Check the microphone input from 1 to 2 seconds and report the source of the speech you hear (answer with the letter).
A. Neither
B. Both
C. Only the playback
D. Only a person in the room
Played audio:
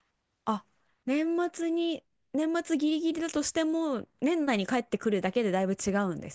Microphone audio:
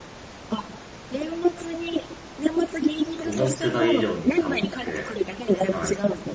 C